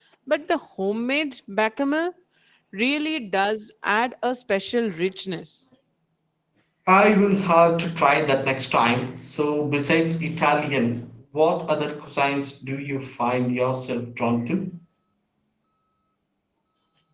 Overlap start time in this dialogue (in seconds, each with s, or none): none